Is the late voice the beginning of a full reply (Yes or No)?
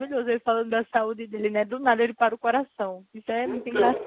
Yes